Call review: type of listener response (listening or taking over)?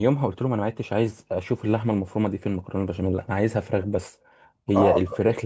taking over